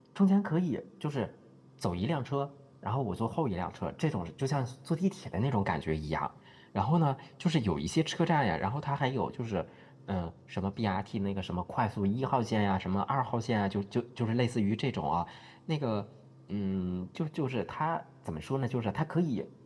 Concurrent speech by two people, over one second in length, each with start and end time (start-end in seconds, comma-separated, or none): none